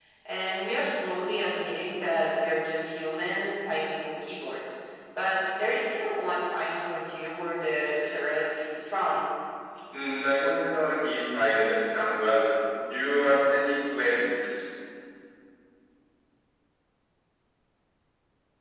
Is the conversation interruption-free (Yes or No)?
Yes